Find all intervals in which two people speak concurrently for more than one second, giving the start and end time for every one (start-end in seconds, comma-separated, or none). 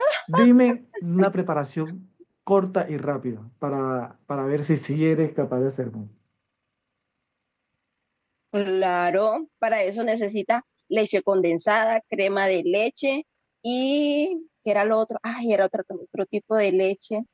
none